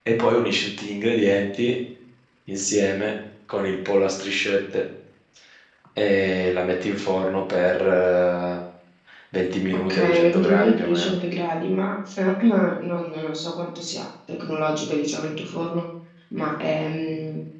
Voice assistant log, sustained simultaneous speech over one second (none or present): present